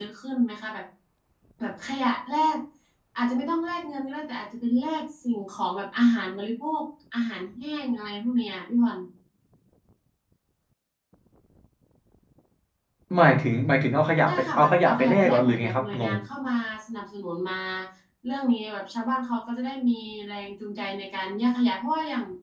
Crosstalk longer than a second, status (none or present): present